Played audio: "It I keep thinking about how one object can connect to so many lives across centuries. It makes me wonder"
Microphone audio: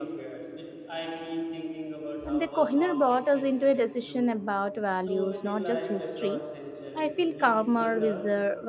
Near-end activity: present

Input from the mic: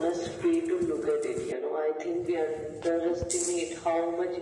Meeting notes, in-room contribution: none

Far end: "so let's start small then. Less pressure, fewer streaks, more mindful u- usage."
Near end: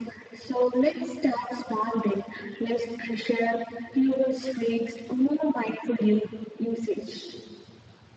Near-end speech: none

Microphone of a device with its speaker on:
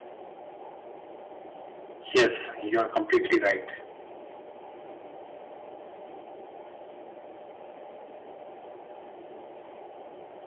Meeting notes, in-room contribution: present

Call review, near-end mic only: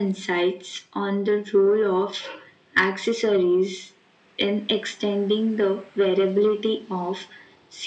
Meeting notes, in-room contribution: none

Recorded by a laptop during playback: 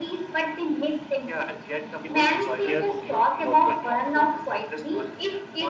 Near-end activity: present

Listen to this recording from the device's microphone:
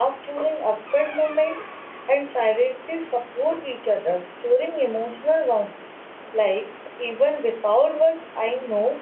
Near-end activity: present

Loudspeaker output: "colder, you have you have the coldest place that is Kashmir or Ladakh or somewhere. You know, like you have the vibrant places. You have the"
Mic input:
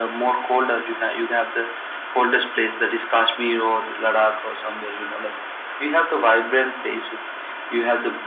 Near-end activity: none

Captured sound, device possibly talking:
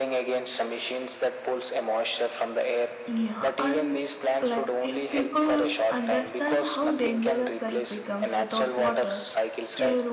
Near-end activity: present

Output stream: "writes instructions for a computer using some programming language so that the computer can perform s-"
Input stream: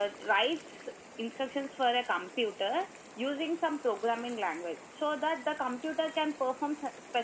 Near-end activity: none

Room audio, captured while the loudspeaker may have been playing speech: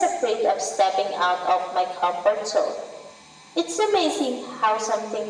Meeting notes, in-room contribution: none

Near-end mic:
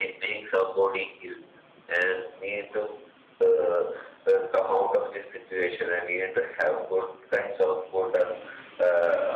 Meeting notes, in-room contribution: none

